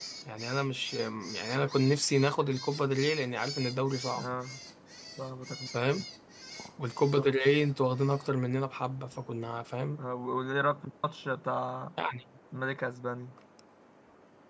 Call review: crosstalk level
none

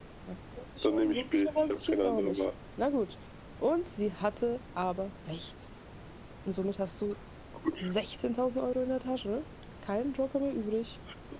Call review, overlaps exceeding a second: present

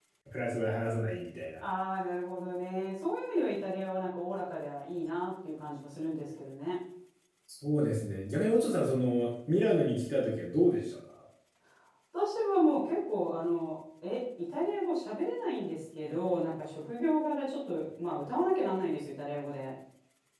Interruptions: none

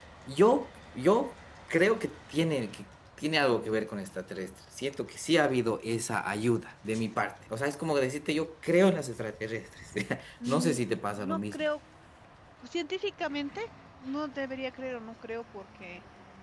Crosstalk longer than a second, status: present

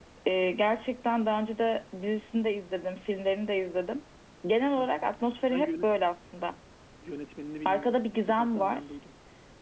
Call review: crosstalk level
present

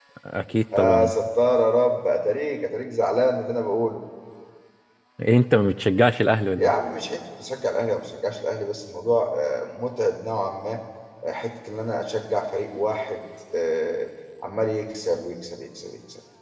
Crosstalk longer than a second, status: none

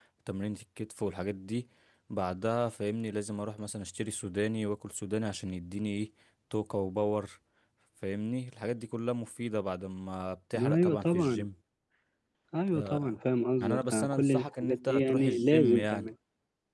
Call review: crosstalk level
present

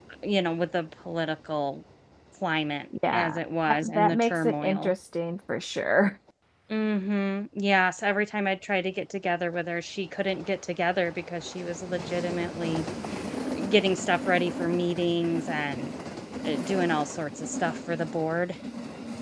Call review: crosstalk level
present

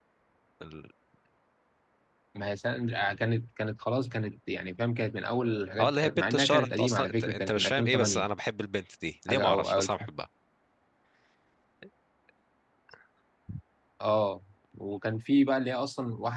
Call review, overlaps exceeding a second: present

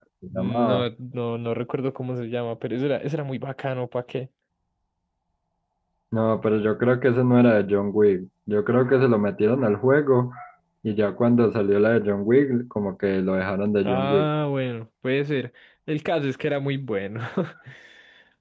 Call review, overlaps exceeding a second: none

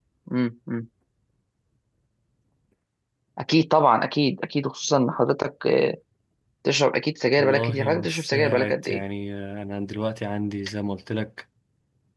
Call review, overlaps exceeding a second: present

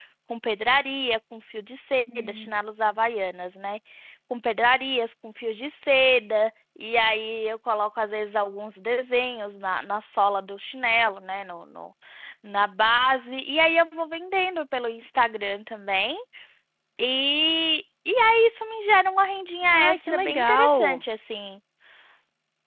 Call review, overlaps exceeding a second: present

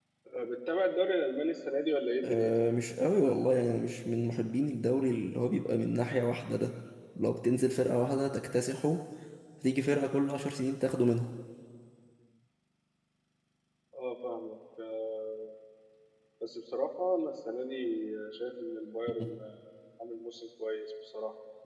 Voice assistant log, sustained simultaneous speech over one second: none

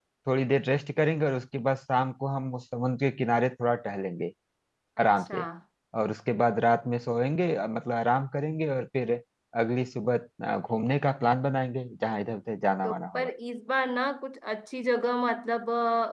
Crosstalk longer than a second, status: none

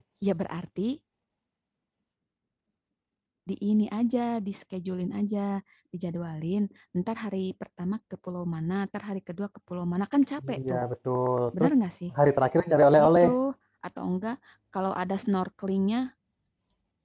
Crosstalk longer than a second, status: none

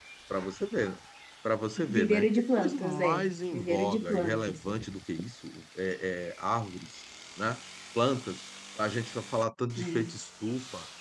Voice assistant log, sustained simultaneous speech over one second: present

